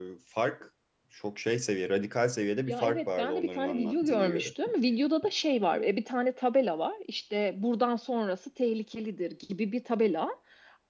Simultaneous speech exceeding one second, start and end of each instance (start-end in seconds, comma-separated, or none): 2.7-4.5